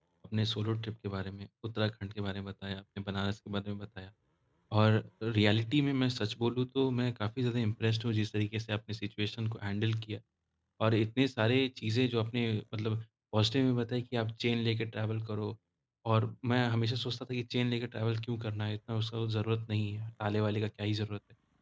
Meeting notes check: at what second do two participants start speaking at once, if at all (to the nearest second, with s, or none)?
none